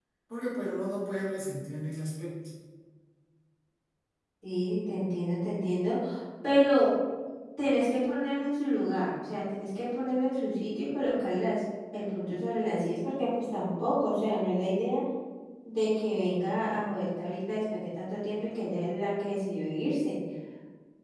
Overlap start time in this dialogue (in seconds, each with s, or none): none